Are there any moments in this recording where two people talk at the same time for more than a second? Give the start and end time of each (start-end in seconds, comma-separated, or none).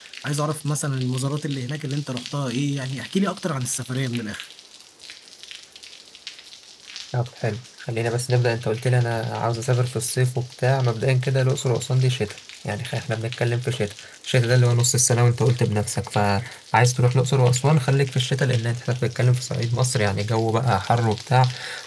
none